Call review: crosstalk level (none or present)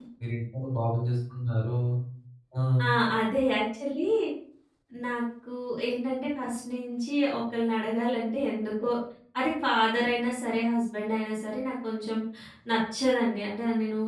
none